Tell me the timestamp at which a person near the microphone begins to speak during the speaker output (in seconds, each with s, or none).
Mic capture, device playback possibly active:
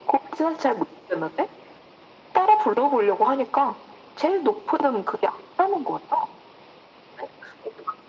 none